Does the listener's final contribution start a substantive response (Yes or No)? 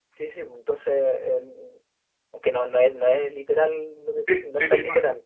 Yes